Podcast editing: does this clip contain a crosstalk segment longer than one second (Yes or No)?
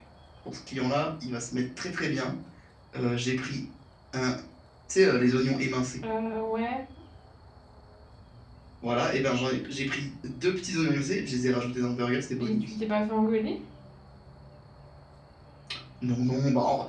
No